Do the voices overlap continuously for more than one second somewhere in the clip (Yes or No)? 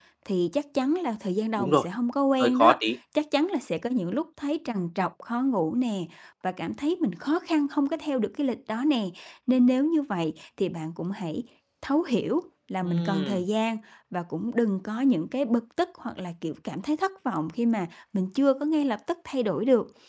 No